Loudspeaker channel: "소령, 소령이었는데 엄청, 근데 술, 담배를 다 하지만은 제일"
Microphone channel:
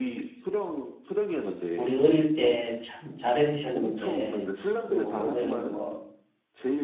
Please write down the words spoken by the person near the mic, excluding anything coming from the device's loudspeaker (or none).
우리 어릴 때 참 잘해주셨는데, 또 오면은 뭐,